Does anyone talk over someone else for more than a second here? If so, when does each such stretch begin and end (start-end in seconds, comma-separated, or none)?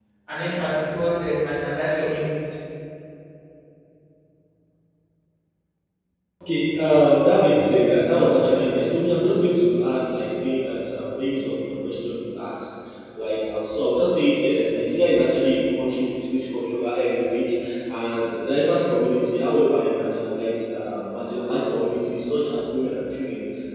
none